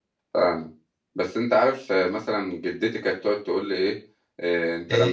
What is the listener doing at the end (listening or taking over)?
listening